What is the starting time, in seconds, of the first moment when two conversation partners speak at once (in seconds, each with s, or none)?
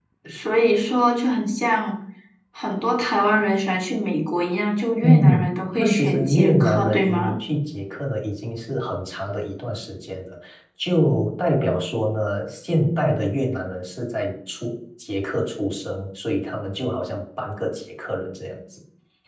5.0 s